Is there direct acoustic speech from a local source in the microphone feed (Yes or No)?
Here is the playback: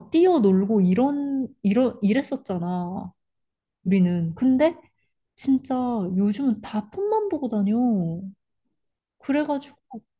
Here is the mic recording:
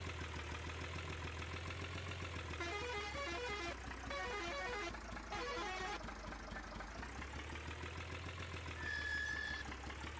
No